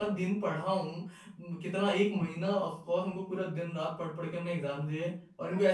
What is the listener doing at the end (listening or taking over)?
taking over